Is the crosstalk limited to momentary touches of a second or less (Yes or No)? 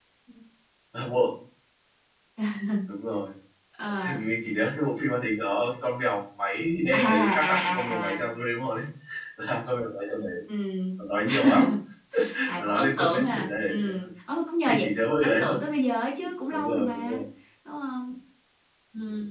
No